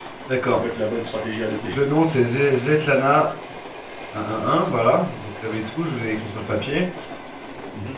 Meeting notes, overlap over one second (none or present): none